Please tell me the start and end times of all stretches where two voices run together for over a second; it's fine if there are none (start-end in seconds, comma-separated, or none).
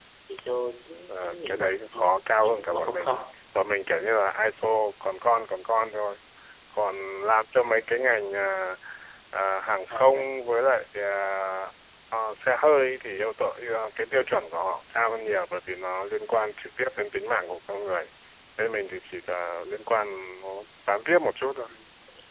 1.1-3.2